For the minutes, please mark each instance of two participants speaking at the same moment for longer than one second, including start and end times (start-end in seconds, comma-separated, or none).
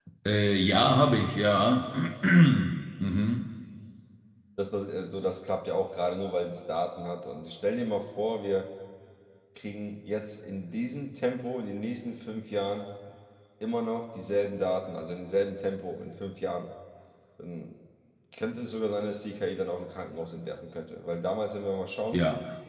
none